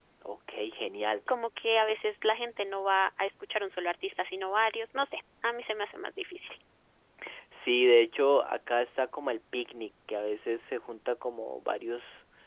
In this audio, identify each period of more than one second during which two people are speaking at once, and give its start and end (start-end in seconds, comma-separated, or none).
none